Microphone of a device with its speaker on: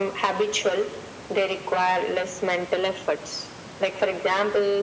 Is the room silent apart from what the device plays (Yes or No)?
Yes